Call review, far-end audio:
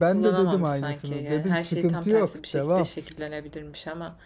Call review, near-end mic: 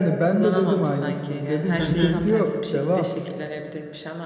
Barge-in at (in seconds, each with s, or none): 1.8 s